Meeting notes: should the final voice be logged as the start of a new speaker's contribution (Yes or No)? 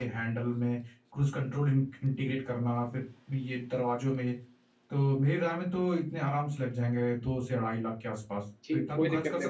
Yes